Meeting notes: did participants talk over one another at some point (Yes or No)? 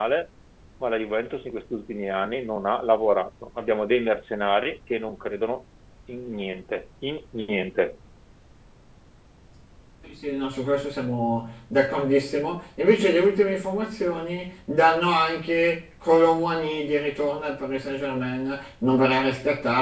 No